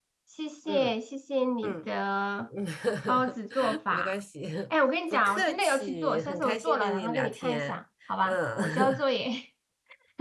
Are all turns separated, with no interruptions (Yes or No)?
No